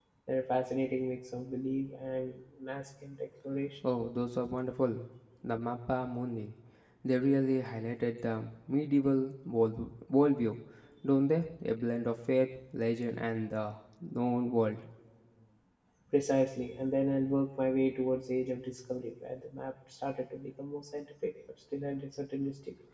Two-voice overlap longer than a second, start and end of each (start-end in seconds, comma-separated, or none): none